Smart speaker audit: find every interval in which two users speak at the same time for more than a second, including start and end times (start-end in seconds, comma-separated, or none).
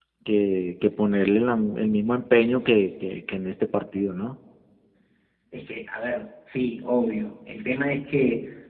none